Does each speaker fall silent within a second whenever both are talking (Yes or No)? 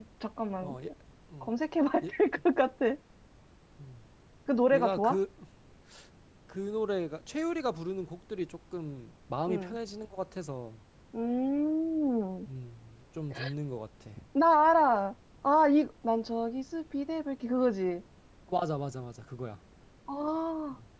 Yes